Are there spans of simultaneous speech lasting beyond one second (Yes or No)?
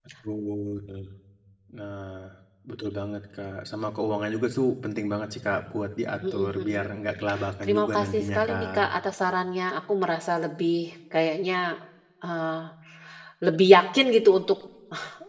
Yes